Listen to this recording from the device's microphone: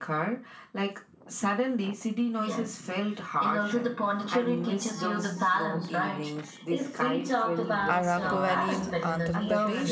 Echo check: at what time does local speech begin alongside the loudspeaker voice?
7.9 s

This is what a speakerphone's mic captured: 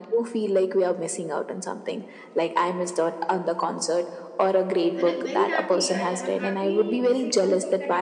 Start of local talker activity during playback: 5.0 s

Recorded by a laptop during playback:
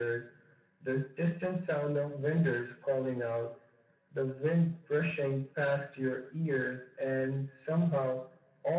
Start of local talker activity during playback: none

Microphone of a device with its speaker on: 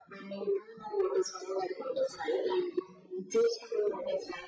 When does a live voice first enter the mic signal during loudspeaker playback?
none

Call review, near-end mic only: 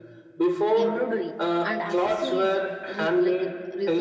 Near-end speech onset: 0.8 s

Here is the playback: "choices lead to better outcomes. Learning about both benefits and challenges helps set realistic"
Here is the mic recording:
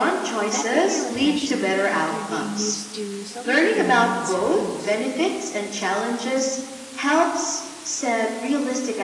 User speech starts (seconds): 0.5 s

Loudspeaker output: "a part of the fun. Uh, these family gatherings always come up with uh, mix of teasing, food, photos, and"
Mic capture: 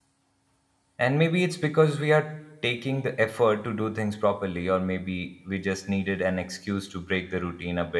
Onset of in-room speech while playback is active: 1.0 s

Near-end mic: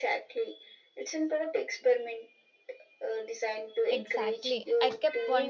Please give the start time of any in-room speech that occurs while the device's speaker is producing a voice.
3.9 s

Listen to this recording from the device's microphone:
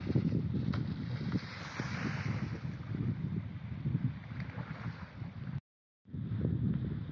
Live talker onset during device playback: none

